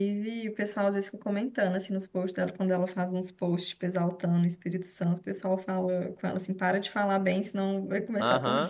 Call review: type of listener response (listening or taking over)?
taking over